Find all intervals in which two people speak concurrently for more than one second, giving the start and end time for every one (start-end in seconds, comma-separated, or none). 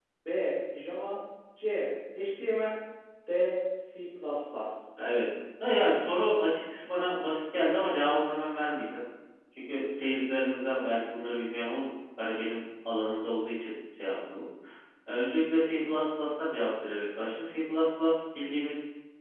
none